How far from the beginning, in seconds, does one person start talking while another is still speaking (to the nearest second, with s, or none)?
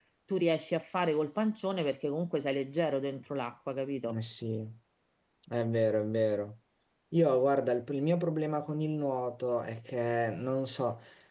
none